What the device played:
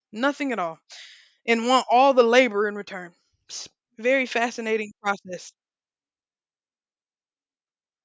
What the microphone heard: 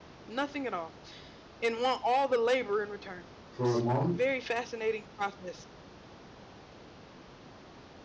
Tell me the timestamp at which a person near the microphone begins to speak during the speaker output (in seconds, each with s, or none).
3.5 s